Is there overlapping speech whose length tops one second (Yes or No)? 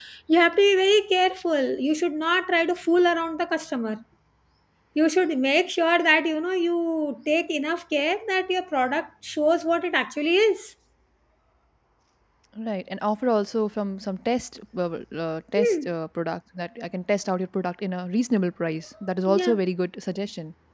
No